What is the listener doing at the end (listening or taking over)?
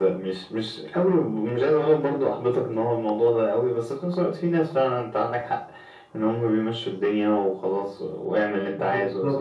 taking over